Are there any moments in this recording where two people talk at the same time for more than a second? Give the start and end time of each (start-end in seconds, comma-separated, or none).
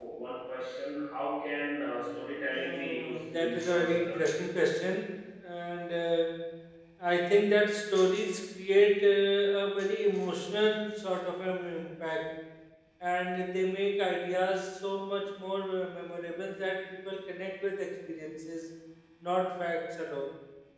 2.6-4.2